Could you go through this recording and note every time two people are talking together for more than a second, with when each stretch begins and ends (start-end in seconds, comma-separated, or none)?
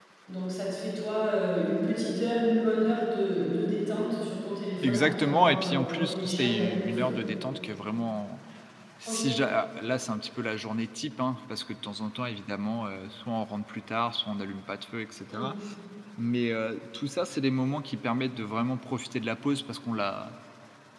4.8-7.1